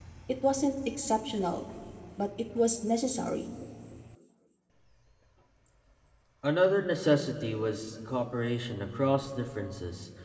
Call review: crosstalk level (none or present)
none